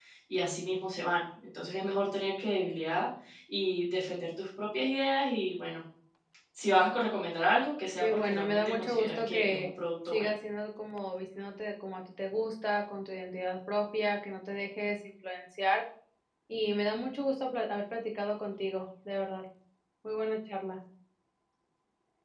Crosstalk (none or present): present